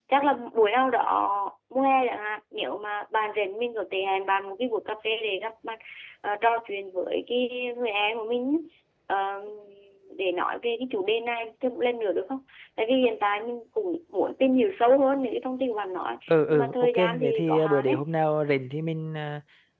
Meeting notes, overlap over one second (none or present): present